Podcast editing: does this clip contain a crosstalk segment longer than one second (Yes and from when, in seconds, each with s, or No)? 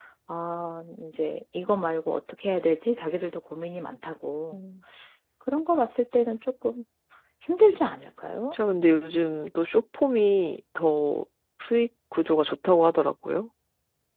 No